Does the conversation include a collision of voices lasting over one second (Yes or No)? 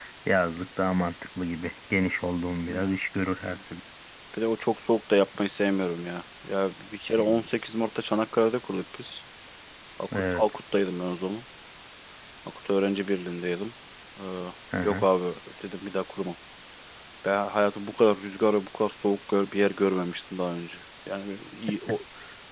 No